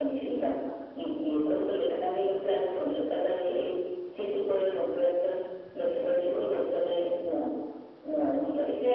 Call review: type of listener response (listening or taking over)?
taking over